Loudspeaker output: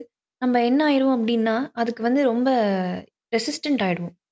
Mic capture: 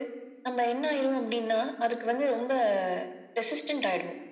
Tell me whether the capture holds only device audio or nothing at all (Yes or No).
Yes